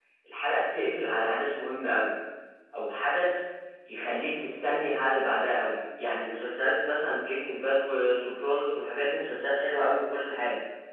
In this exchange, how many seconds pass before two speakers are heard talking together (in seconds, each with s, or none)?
none